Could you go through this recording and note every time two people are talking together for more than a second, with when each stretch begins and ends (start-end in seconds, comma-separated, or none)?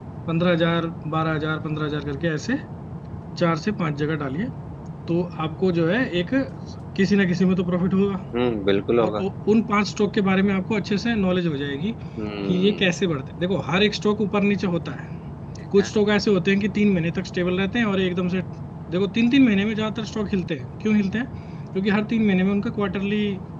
none